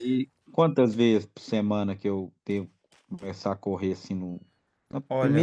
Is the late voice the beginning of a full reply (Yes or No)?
Yes